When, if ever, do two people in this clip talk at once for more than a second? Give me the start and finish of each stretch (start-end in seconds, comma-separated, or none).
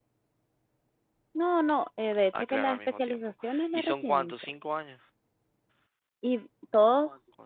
2.3-4.3